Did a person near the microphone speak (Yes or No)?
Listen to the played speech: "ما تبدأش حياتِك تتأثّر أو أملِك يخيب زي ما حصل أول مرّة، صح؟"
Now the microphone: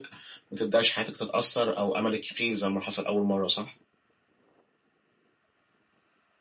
No